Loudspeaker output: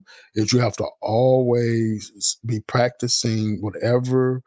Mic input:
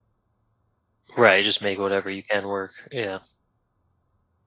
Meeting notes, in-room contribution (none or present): present